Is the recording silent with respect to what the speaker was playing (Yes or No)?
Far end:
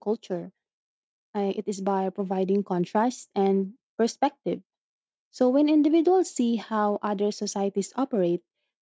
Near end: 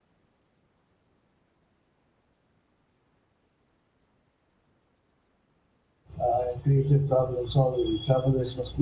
Yes